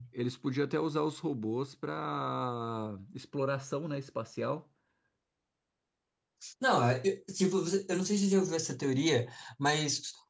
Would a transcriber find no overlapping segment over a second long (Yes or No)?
Yes